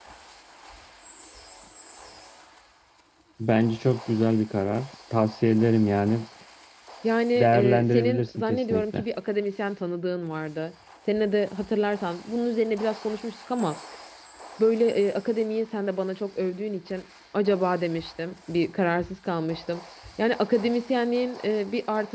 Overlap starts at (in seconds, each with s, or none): 7.3 s